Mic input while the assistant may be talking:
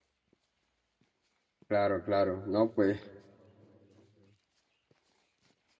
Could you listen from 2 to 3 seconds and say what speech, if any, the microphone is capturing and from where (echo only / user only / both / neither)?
user only